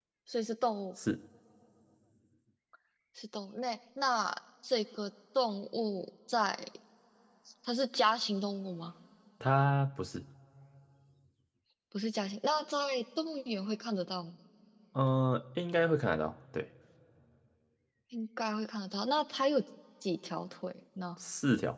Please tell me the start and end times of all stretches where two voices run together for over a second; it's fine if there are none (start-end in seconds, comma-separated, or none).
none